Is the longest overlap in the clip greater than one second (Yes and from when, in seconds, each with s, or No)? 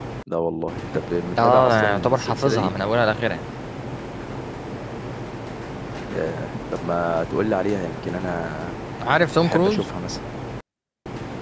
Yes, from 1.4 s